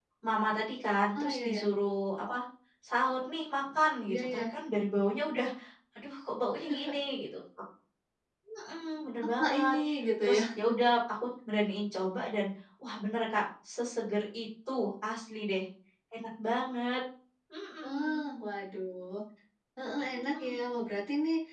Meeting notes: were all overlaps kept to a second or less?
Yes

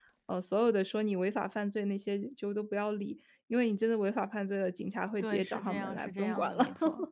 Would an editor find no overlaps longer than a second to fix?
No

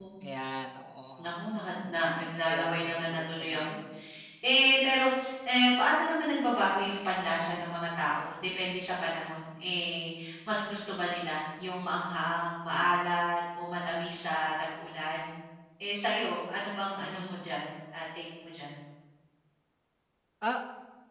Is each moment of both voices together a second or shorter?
No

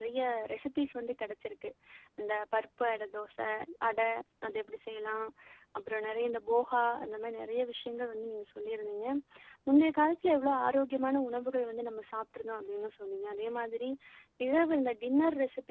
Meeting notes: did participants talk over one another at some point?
No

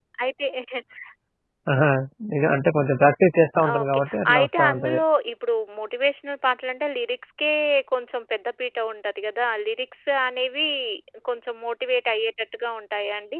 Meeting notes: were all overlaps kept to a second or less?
No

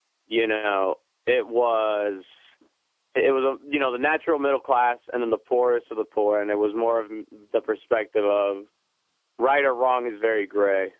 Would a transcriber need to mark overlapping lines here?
No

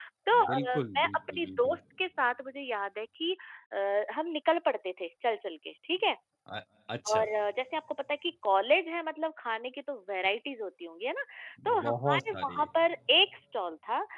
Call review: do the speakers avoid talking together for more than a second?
No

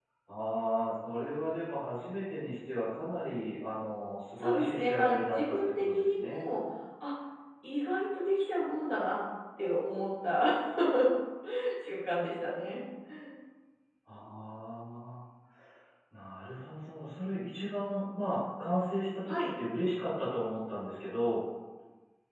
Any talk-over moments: Yes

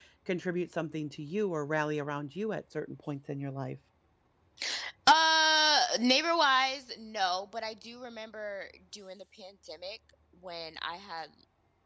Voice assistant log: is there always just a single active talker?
Yes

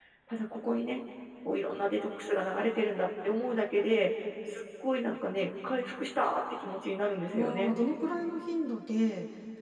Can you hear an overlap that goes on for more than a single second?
No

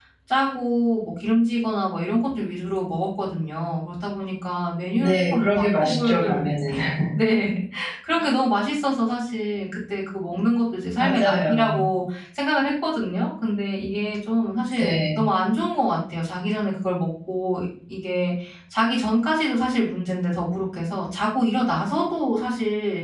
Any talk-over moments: Yes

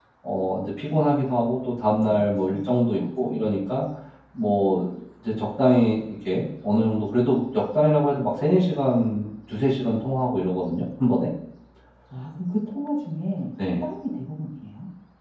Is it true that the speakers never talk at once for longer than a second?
No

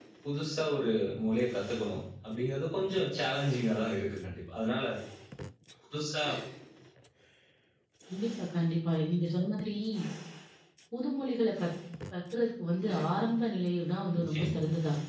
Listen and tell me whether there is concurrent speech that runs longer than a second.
No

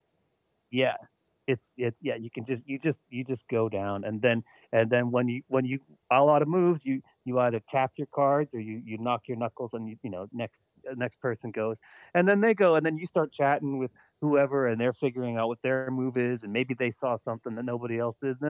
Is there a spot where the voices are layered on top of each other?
No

